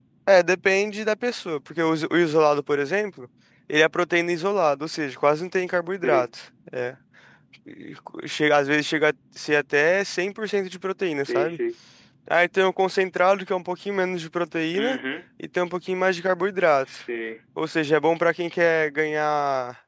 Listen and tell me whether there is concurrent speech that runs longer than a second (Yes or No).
No